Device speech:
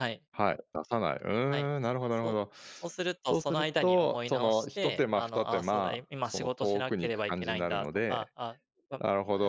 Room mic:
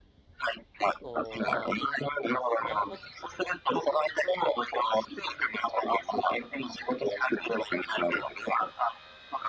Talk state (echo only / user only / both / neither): both